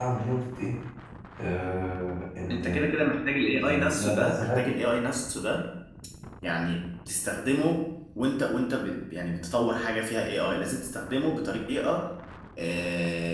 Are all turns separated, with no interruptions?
No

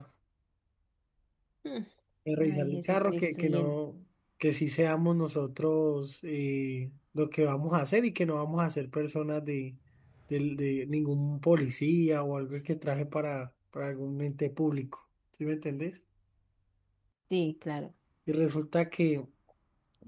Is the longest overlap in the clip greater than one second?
Yes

